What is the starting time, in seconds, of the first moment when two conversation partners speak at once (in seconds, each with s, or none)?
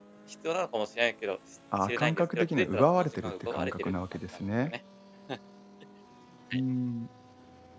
1.7 s